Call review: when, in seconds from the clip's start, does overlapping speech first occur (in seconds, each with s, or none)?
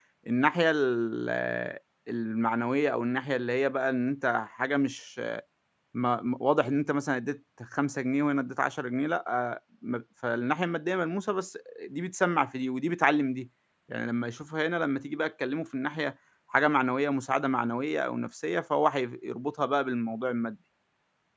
none